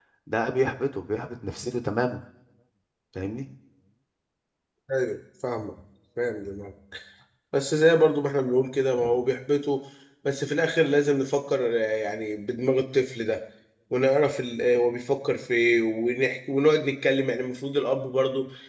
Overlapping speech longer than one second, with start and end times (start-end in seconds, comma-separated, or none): none